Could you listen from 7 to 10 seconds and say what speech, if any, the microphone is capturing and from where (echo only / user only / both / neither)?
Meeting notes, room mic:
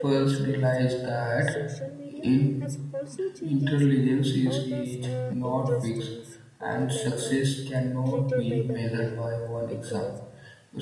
both